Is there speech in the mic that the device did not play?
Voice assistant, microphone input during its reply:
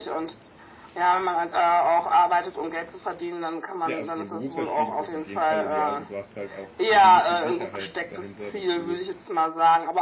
Yes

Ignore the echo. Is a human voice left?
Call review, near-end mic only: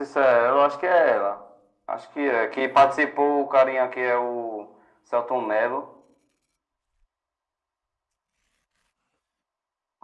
No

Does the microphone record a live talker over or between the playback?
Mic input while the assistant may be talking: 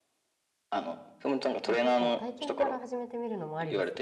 Yes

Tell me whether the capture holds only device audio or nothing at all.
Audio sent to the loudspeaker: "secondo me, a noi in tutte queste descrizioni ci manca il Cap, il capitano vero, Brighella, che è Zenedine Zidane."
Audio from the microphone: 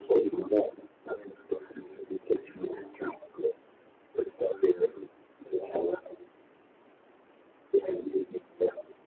Yes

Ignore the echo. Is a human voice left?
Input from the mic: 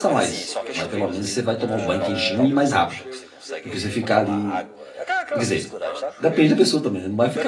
Yes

